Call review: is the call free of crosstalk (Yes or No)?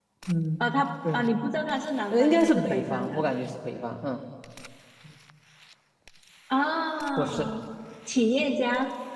No